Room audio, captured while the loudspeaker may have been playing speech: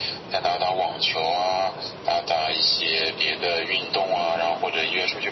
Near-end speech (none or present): none